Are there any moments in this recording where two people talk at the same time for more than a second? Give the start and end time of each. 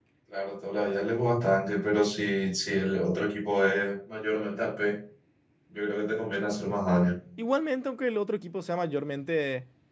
none

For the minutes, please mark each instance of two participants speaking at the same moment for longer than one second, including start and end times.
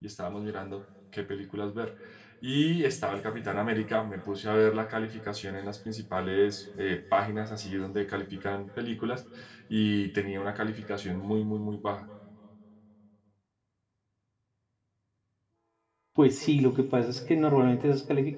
none

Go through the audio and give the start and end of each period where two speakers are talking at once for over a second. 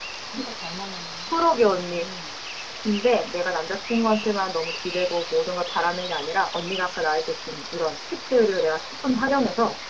none

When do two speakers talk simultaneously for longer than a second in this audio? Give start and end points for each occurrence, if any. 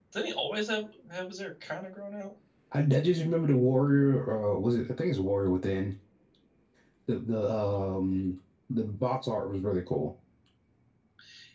none

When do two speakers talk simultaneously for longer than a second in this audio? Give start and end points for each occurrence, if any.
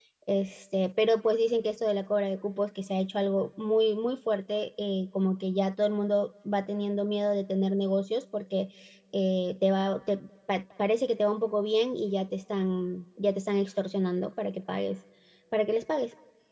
none

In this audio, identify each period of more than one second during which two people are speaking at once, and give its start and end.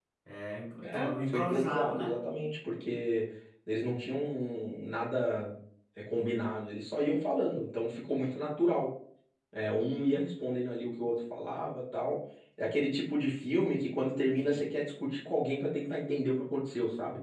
0.8-2.1

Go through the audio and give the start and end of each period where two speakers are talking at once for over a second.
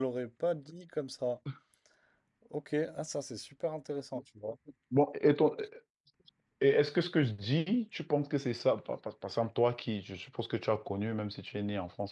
none

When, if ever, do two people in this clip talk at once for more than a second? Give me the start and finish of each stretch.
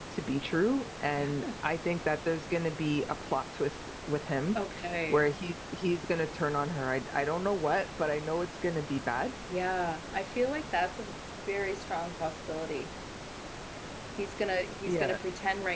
none

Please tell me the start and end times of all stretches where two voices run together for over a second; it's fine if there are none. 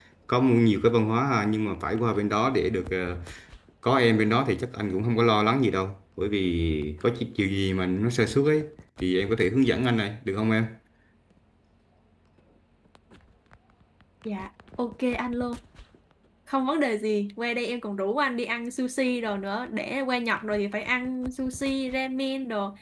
none

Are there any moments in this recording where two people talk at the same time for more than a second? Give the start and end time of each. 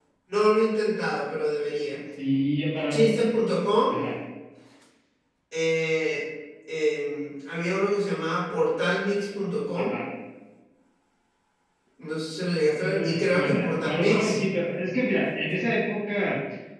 12.7-14.4

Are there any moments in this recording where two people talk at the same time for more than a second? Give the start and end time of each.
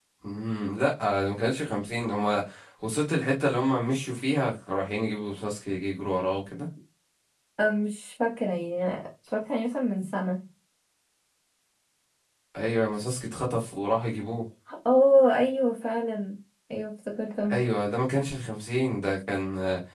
none

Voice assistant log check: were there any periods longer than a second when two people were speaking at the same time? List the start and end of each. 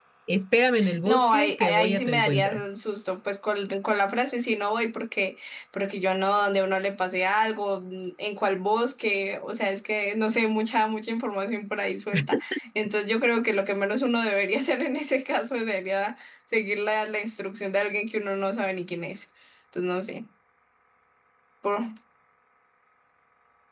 1.1-2.6

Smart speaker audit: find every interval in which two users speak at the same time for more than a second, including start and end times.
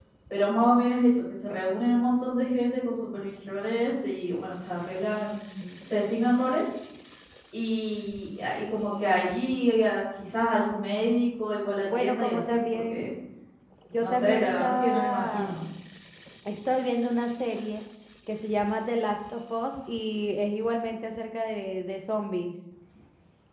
11.9-13.1, 14.0-15.5

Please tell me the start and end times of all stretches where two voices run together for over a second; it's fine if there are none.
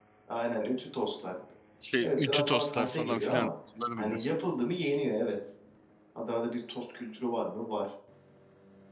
2.0-3.5

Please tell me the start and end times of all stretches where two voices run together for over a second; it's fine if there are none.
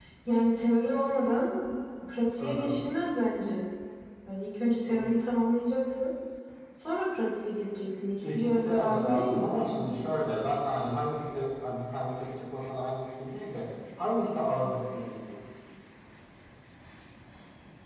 8.2-9.6

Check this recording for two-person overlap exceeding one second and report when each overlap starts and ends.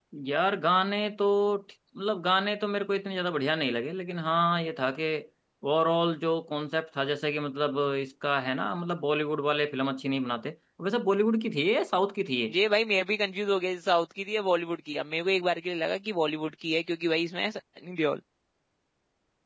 none

